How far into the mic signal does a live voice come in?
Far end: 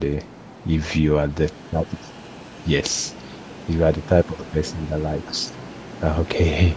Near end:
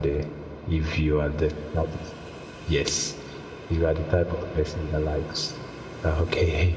none

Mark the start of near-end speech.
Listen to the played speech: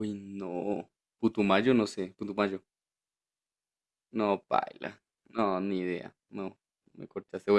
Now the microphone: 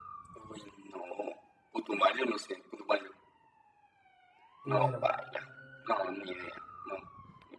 4.6 s

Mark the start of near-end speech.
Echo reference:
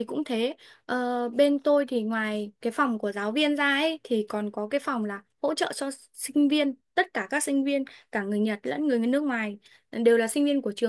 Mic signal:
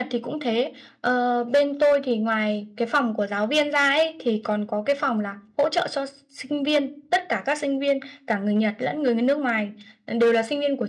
none

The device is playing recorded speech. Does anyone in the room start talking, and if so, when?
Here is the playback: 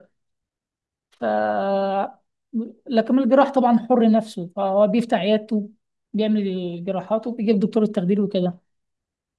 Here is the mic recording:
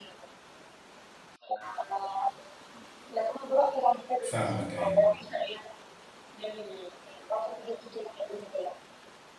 4.2 s

